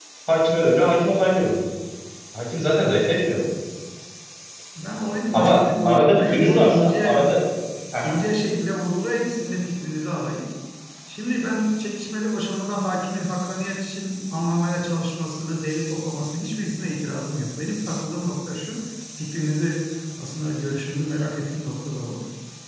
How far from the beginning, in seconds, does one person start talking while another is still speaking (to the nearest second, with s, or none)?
5 s